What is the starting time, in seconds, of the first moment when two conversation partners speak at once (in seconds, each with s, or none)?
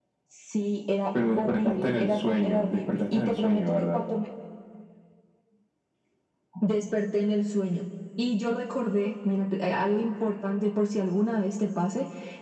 1.1 s